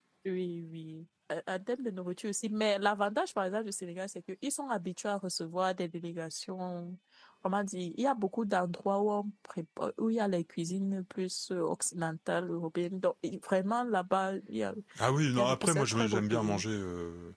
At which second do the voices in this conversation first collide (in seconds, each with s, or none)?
15.4 s